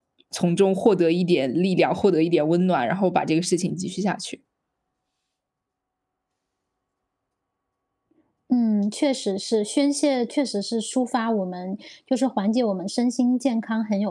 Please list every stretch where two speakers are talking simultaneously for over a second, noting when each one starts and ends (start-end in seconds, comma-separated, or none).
none